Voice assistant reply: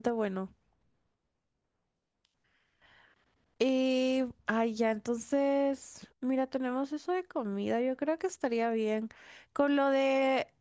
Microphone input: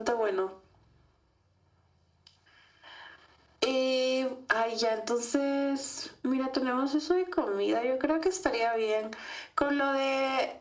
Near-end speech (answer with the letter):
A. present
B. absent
B